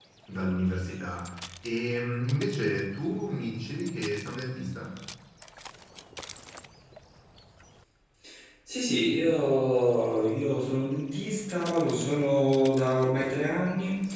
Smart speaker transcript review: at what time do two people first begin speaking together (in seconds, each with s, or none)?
none